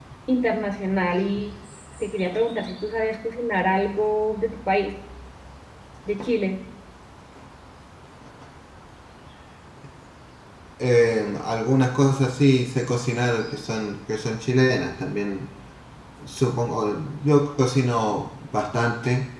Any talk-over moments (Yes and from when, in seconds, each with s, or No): No